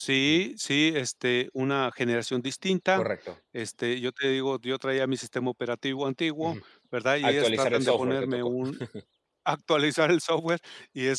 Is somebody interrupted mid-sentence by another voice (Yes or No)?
Yes